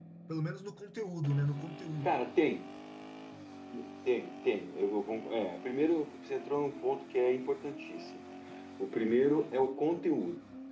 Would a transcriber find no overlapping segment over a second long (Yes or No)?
Yes